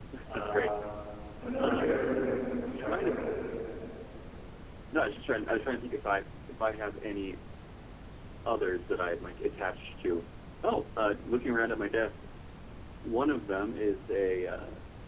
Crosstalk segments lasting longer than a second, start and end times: none

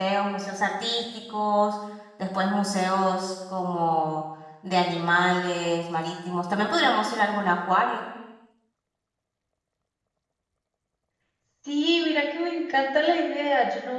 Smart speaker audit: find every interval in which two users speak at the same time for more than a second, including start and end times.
none

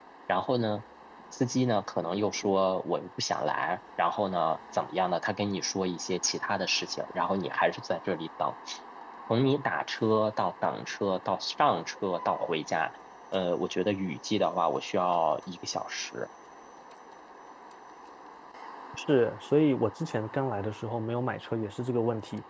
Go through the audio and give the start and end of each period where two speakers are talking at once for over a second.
none

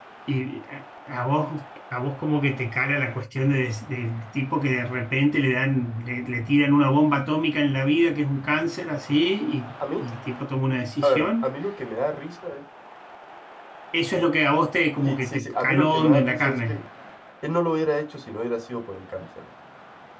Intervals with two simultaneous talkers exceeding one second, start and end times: 15.0-16.8

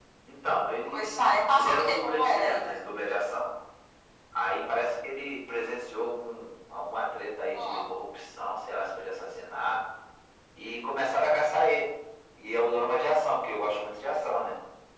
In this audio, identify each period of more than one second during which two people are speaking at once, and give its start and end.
0.9-2.7

